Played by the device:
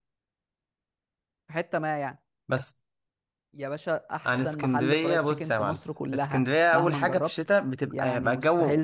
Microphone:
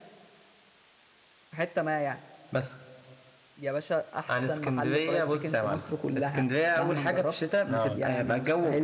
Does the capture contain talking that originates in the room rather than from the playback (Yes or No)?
Yes